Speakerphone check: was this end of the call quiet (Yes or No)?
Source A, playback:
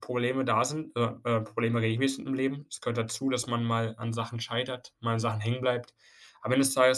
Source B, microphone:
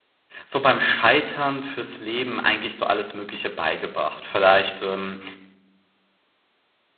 No